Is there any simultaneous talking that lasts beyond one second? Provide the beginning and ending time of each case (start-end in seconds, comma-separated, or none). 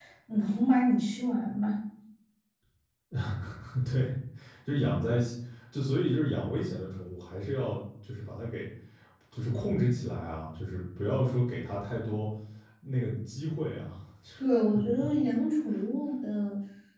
none